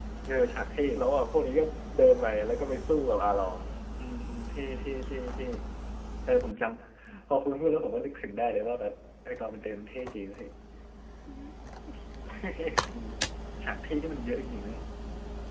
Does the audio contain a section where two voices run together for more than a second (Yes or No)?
No